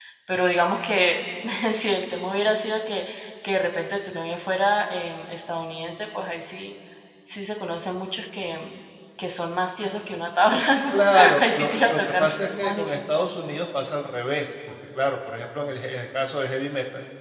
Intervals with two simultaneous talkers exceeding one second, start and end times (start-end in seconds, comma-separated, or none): 10.9-13.0